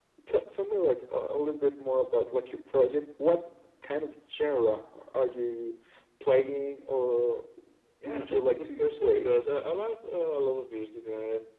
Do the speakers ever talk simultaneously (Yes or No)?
Yes